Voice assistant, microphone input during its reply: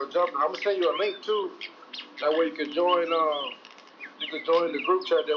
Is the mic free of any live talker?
Yes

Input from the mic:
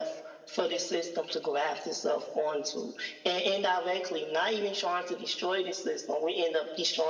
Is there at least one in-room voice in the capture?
No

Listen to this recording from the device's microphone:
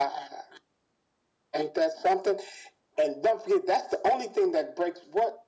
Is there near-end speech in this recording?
No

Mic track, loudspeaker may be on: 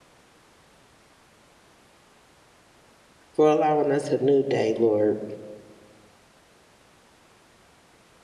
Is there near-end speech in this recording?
Yes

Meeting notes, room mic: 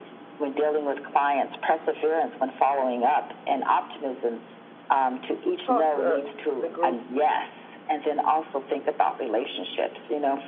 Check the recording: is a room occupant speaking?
Yes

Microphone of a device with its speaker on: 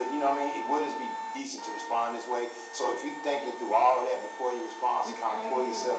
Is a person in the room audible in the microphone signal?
Yes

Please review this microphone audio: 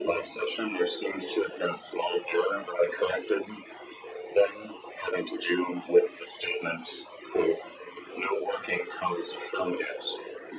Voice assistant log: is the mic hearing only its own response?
Yes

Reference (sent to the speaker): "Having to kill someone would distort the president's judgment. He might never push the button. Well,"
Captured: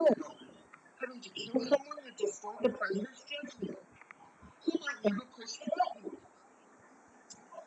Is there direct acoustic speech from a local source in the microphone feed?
No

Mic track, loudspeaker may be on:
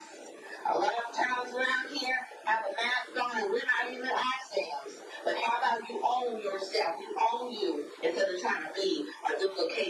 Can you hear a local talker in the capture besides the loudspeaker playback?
No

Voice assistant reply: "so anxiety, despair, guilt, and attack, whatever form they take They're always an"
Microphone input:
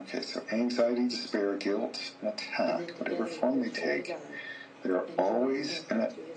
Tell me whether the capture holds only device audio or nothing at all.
No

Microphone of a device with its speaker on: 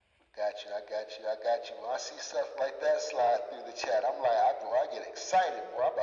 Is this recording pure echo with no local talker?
Yes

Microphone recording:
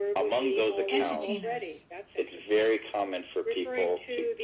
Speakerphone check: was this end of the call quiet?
No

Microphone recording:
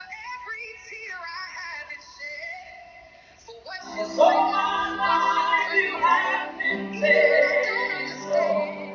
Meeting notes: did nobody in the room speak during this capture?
No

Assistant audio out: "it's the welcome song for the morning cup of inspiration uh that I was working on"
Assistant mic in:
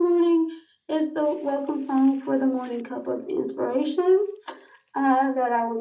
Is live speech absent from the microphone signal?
Yes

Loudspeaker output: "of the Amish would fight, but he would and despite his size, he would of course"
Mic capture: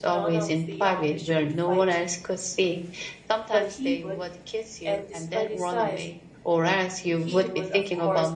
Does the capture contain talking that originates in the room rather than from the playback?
Yes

